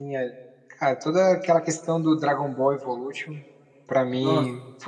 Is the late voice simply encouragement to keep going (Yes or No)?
Yes